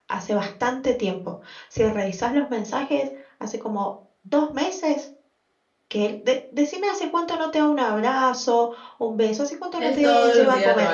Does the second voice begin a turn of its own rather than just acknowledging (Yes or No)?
Yes